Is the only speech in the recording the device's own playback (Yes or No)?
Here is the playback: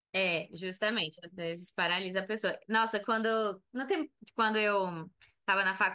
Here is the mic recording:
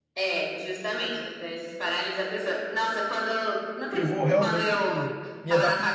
No